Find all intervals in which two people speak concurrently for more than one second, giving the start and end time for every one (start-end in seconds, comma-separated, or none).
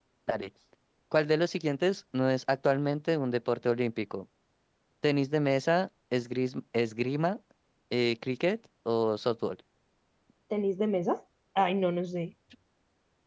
none